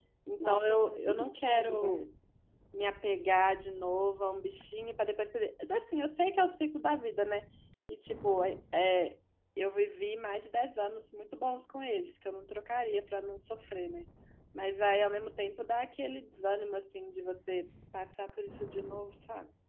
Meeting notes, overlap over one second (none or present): present